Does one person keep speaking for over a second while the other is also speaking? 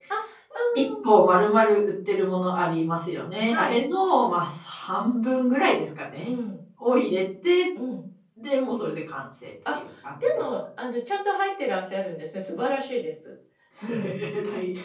No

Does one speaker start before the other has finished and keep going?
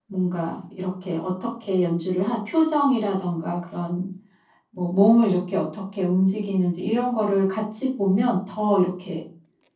No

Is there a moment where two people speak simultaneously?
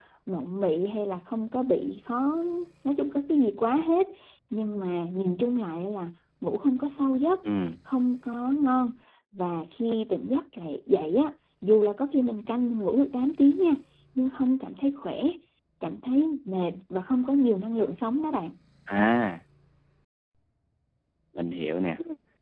No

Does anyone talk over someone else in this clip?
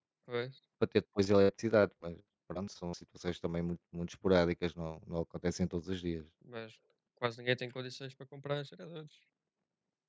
No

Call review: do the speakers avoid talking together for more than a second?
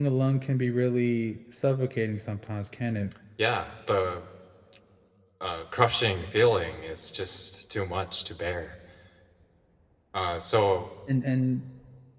Yes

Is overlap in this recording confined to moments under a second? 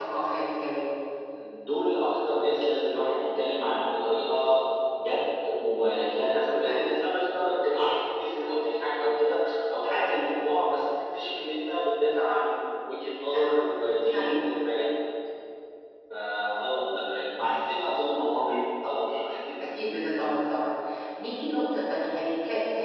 Yes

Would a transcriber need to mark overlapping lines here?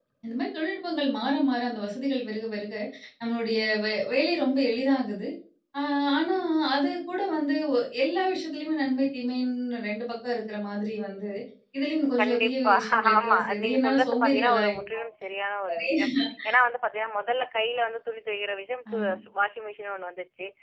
Yes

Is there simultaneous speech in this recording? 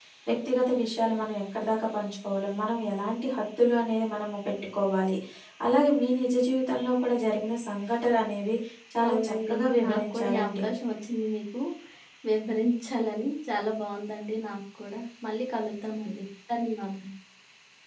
Yes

